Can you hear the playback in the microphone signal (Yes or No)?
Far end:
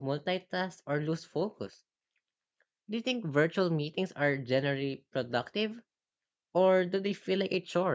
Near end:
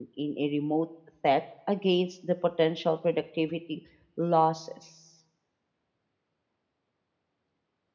No